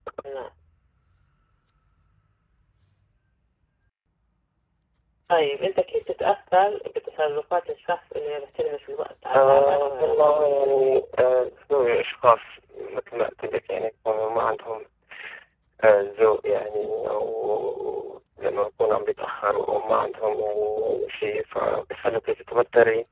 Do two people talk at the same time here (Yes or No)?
Yes